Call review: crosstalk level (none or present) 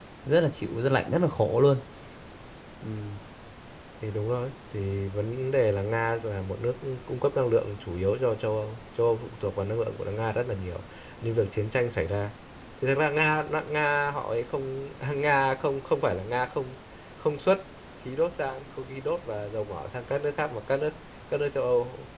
none